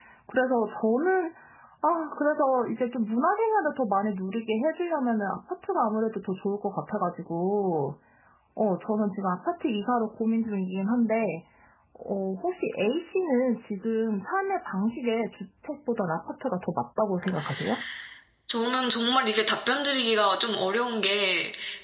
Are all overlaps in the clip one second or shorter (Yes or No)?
Yes